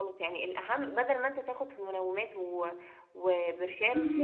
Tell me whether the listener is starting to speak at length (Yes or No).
No